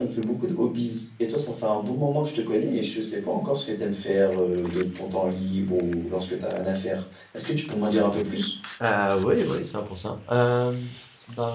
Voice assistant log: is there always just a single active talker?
Yes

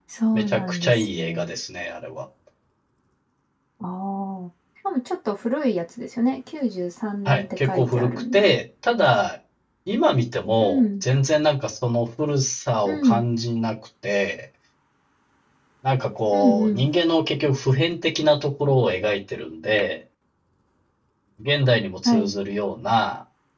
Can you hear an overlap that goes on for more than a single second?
Yes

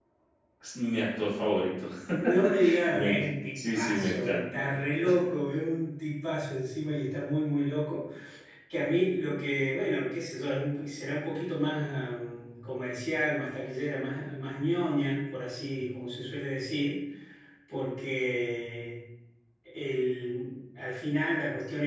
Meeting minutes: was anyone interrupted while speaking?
Yes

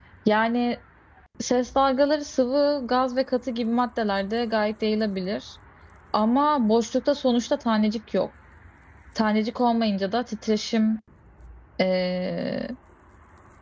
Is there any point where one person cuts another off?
No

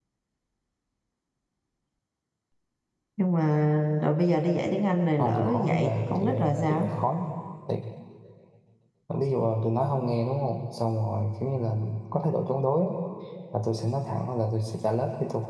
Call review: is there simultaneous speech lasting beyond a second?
Yes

